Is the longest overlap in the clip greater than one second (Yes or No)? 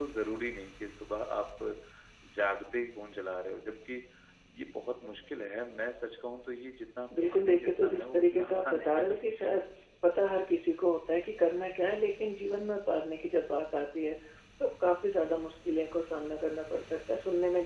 Yes